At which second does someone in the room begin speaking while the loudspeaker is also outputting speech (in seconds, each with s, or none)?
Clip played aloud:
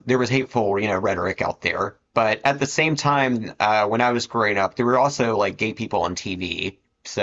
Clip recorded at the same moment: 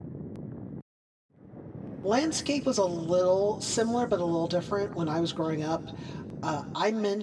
2.0 s